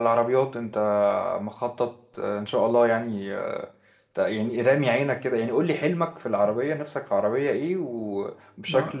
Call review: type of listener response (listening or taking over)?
taking over